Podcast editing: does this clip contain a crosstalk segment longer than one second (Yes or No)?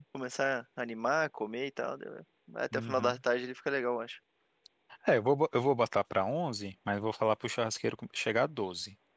No